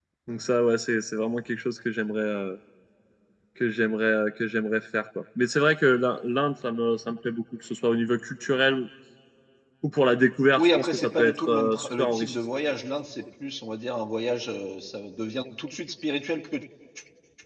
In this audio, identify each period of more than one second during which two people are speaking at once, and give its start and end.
10.6-12.4

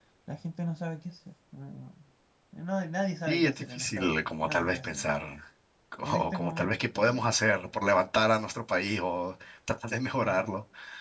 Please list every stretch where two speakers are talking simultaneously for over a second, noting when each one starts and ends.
3.3-5.1, 6.0-7.3

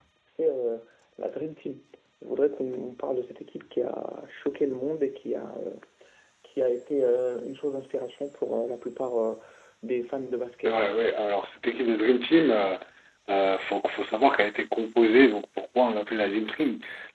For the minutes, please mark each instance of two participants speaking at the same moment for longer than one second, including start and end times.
none

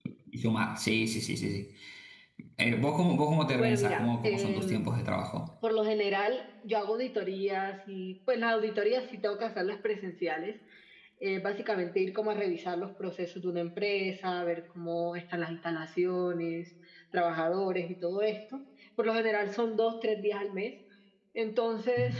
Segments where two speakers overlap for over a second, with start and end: 3.6-4.9

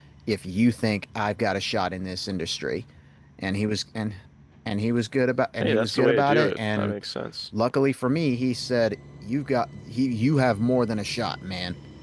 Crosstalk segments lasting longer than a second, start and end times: 5.6-6.9

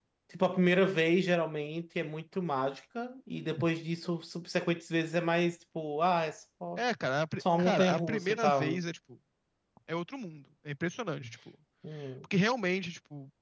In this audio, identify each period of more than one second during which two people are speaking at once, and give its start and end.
7.4-8.8

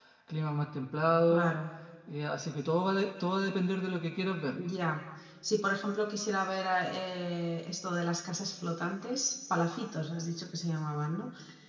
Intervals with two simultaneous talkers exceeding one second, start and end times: none

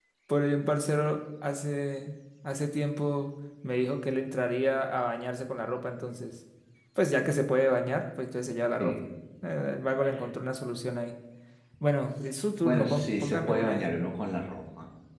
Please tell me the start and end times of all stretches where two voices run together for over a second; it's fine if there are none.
12.6-13.9

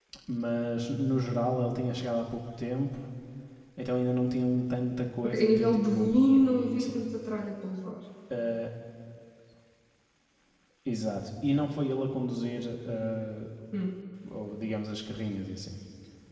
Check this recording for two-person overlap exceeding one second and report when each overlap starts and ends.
5.2-6.9

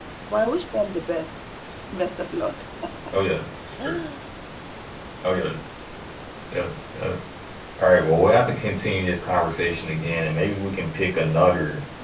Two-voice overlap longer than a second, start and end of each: none

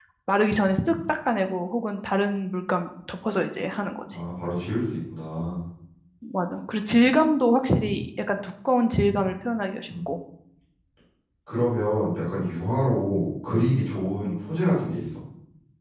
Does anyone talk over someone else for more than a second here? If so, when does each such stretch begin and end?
none

